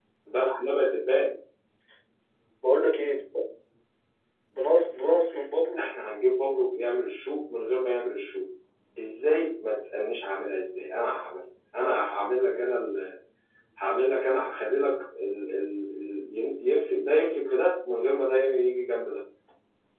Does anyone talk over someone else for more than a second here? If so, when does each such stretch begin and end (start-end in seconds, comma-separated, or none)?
none